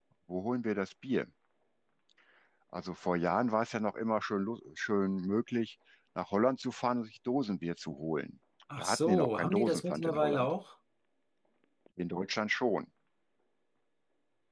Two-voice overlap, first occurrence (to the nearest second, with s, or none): 9 s